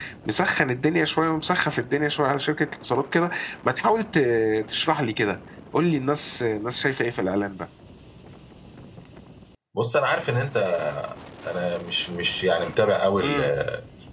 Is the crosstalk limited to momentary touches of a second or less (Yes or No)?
Yes